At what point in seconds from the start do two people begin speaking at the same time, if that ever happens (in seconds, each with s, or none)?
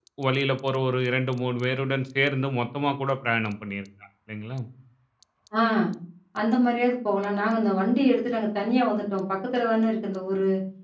none